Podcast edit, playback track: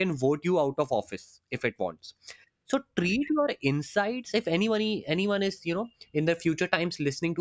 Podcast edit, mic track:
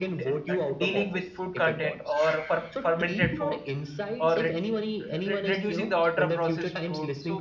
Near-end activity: present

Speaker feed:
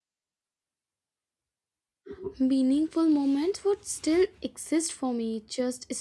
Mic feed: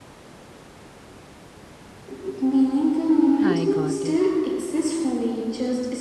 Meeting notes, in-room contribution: present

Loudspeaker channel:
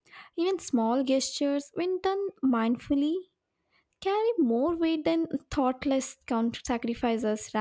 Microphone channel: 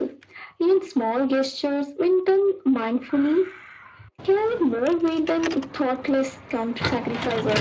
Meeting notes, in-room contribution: none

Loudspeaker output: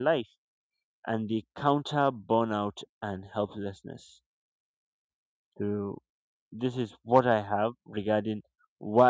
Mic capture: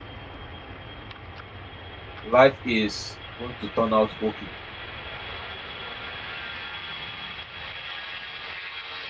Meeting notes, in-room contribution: present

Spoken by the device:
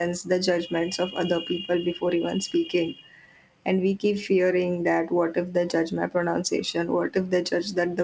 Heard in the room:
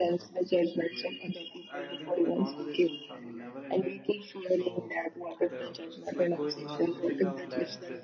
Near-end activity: present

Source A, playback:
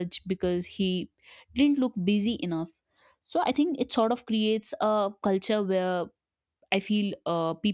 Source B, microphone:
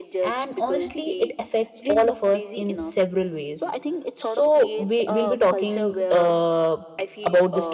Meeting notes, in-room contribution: present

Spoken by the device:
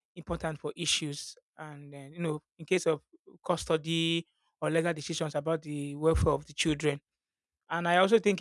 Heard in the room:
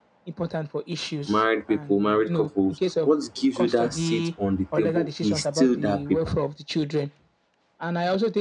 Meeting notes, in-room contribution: present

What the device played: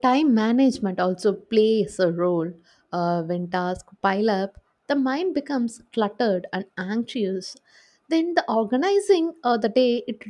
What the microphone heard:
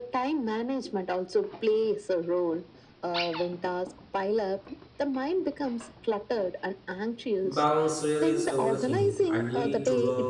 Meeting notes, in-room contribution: present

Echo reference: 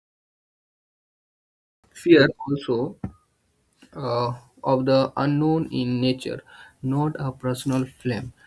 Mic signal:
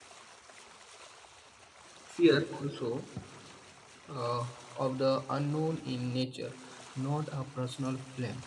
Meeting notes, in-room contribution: none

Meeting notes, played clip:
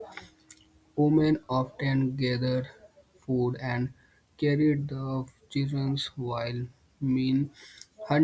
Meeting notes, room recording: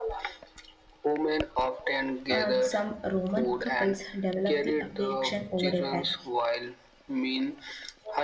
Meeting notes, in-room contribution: present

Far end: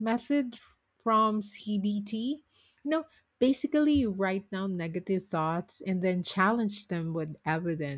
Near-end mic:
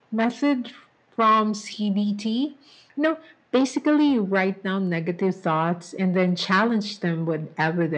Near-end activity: none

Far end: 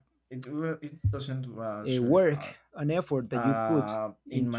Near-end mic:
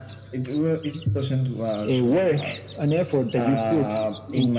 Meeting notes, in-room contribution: none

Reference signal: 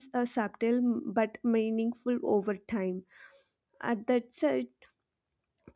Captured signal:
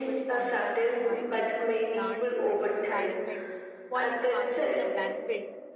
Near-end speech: present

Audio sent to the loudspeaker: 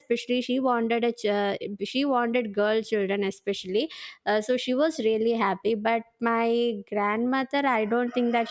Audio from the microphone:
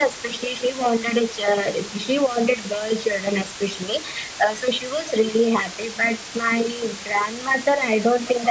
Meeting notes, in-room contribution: none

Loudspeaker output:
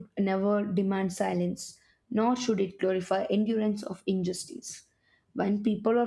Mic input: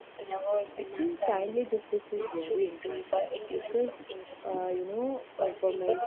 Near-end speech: present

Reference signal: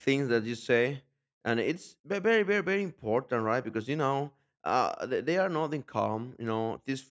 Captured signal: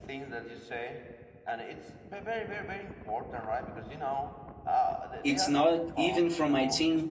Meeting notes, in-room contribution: present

